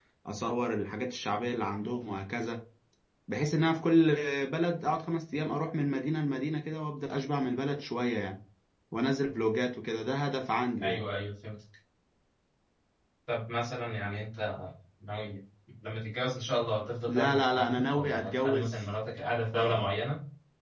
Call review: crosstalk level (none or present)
present